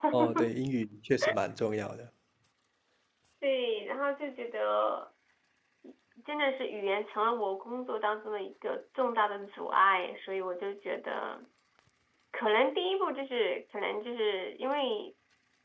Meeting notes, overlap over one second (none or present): none